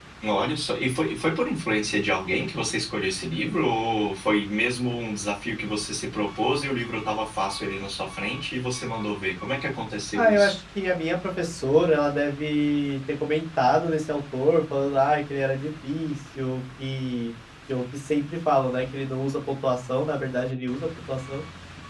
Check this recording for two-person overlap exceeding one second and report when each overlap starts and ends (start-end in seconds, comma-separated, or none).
none